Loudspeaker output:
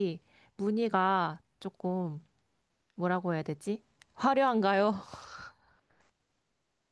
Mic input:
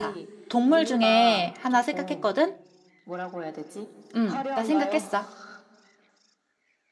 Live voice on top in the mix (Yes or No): Yes